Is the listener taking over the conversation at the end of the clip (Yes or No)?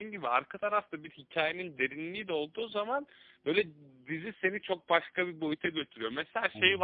No